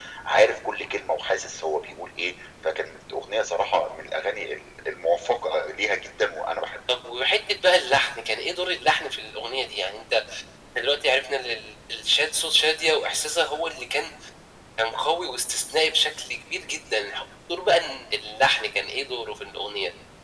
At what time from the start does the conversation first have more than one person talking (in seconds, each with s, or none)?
none